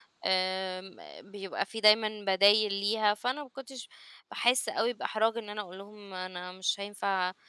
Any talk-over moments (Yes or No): No